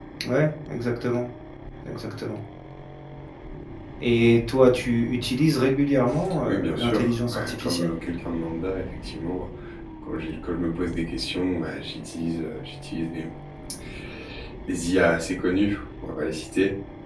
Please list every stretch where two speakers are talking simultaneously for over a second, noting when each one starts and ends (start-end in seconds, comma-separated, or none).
6.4-7.9